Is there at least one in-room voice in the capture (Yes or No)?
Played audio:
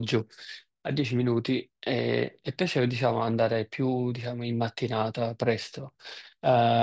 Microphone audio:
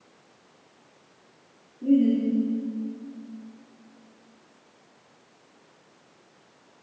Yes